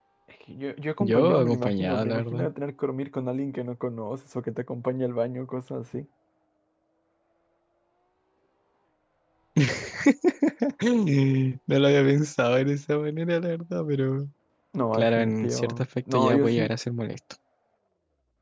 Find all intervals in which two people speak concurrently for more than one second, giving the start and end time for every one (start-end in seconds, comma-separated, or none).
1.0-2.5, 14.9-16.7